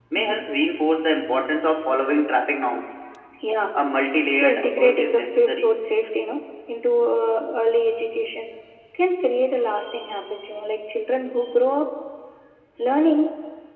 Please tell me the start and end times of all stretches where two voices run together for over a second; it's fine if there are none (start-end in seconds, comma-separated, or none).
4.4-5.7